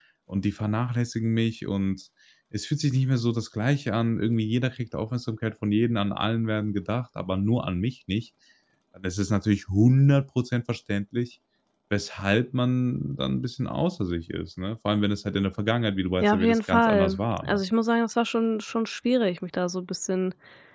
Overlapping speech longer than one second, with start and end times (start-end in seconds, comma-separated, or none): 16.2-17.6